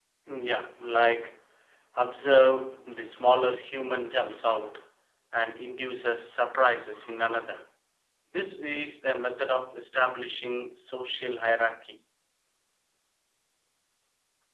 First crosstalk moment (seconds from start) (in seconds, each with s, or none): none